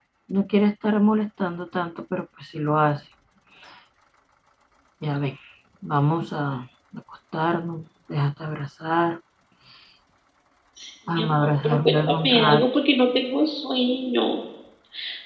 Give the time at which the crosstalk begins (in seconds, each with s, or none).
11.1 s